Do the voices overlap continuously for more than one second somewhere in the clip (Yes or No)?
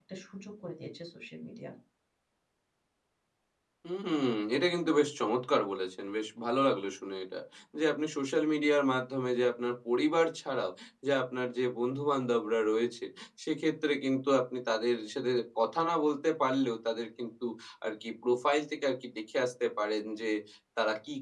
No